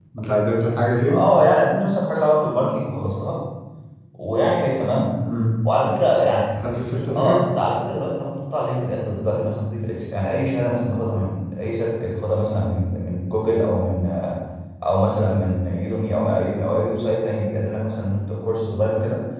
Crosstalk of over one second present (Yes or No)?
No